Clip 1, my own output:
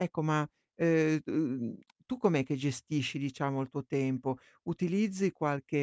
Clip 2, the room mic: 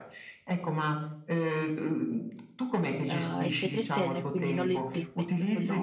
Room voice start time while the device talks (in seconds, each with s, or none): 3.0 s